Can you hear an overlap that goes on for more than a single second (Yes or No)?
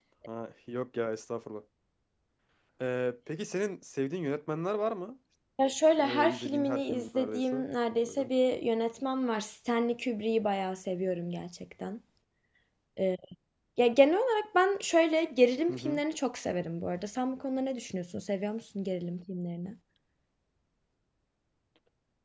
Yes